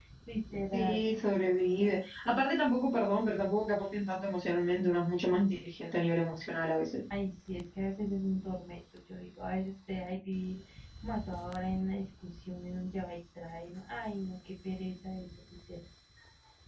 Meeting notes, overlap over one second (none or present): none